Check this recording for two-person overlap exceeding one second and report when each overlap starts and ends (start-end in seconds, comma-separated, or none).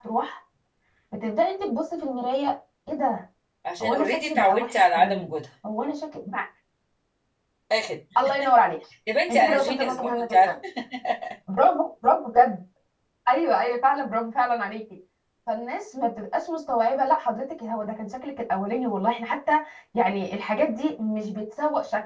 3.8-5.3, 9.3-10.5